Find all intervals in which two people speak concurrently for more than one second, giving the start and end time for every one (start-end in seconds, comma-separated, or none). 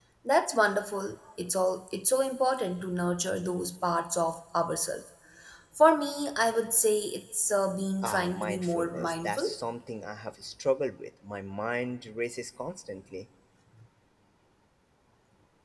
8.0-9.5